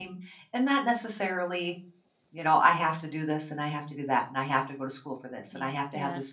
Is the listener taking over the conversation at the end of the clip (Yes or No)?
No